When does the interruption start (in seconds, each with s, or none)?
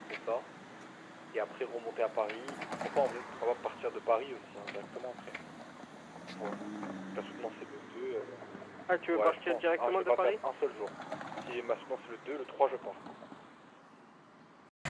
9.1 s